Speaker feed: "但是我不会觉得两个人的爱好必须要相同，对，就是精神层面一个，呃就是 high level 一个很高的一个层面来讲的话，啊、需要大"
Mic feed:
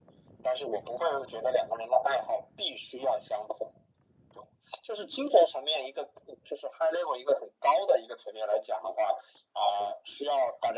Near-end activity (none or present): none